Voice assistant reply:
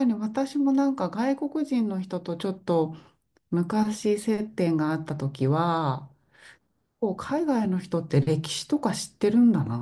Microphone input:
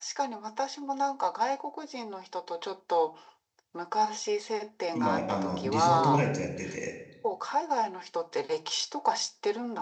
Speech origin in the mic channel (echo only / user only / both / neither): both